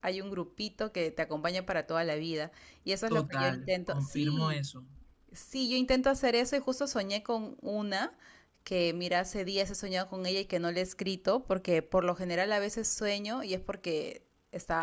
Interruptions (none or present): present